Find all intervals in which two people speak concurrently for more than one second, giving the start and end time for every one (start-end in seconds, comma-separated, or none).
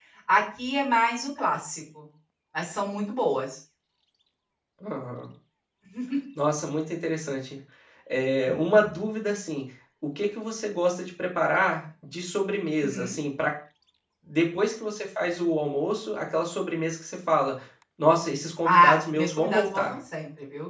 18.6-20.0